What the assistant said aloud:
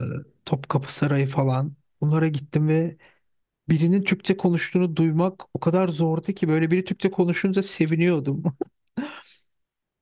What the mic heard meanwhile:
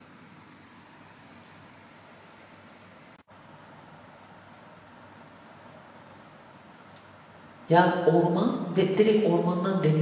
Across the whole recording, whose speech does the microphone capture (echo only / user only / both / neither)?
user only